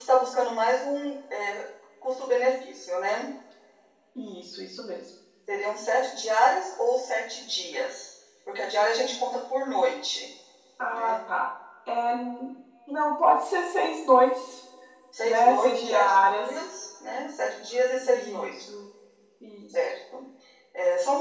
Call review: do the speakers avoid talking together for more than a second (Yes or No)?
No